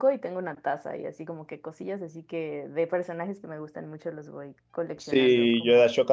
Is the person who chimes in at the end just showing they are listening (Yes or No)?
No